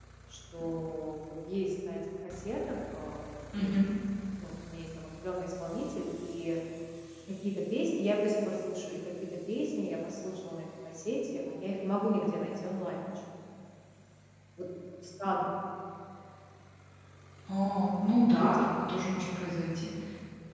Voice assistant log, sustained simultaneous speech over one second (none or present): none